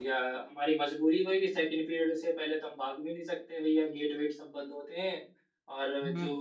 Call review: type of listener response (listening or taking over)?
listening